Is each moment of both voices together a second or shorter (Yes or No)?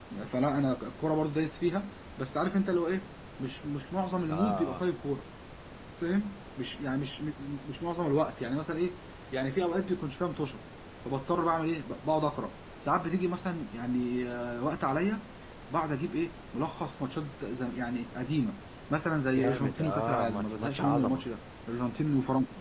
No